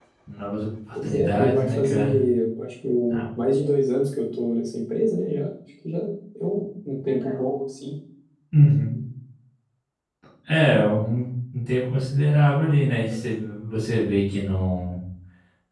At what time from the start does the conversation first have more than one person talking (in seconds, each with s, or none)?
1.0 s